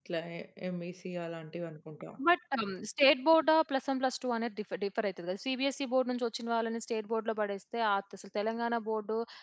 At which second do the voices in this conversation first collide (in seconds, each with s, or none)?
none